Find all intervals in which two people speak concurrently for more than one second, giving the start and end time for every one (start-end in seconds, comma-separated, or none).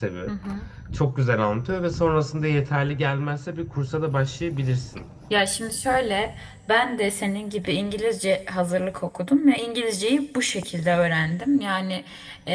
none